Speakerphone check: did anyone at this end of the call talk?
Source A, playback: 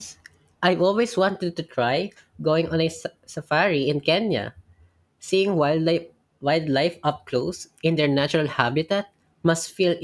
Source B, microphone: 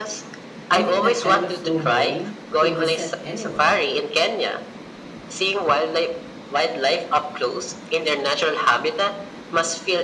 Yes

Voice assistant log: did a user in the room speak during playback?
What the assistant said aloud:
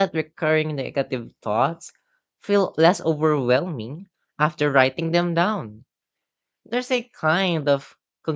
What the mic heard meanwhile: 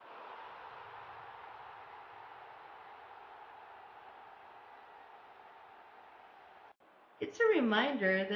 Yes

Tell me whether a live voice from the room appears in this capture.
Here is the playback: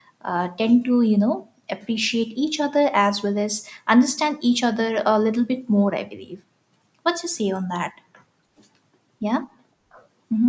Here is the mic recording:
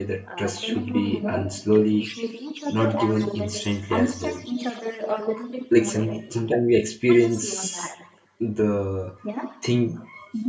Yes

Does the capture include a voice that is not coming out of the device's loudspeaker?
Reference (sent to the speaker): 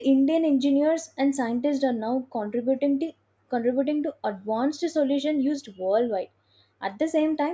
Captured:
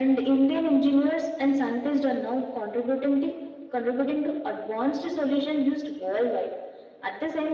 No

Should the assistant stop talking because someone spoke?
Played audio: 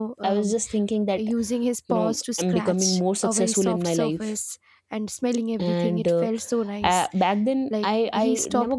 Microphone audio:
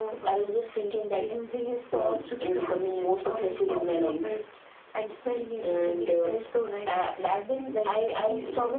No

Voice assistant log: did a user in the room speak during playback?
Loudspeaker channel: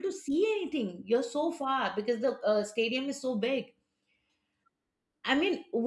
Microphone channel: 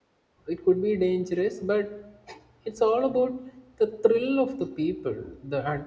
Yes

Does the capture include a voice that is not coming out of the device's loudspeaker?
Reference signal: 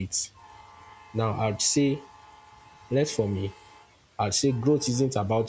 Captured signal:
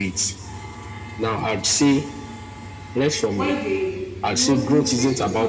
Yes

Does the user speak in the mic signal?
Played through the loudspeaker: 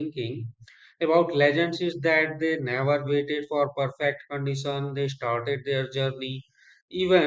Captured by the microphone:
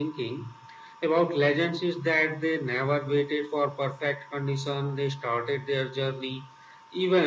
No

